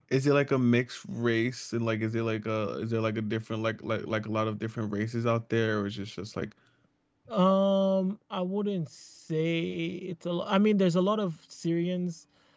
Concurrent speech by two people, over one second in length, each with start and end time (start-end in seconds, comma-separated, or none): none